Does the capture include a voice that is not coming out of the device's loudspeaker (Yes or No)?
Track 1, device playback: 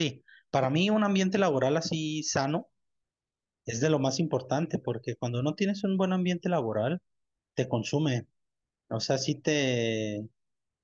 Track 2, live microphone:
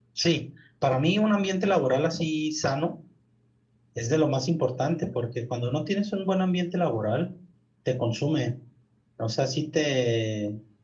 No